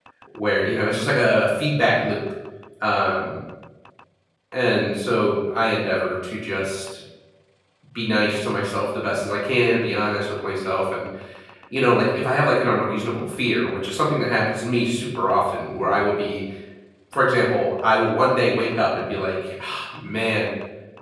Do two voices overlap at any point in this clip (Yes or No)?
No